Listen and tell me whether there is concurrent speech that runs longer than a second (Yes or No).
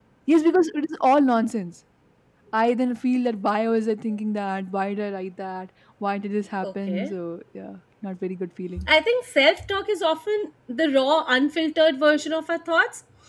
No